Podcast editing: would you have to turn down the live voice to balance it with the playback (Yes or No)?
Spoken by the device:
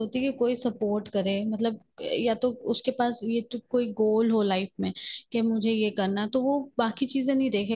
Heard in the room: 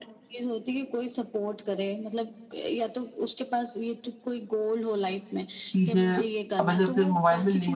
Yes